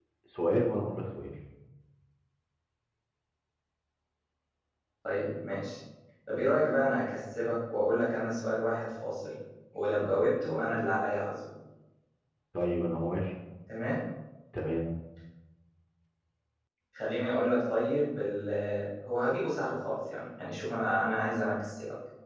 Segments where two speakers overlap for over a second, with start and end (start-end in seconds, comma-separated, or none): none